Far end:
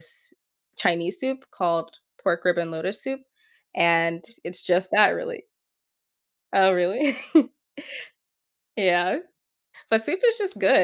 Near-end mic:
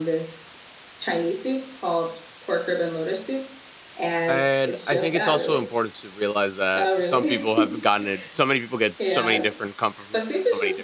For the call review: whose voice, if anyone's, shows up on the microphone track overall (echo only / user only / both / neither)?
both